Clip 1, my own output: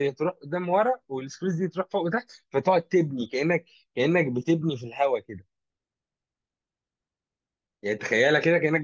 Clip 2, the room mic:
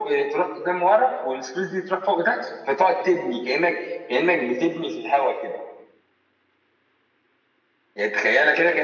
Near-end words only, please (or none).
none